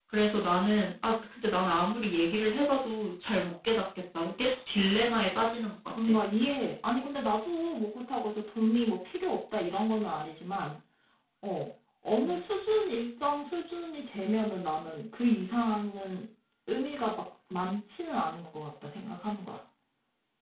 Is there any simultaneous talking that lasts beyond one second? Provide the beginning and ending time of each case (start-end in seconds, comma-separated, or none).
none